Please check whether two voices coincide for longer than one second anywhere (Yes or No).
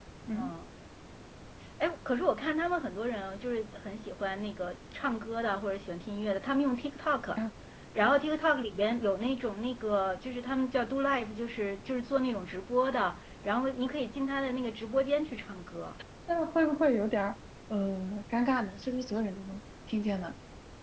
No